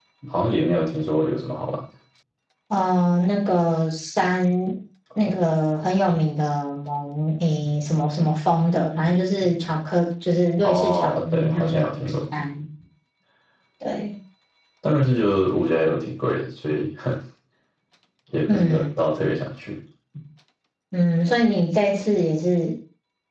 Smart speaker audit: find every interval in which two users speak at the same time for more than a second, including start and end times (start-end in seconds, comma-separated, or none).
10.6-12.1